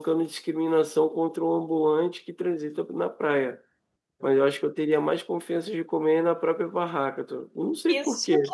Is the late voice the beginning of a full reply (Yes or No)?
Yes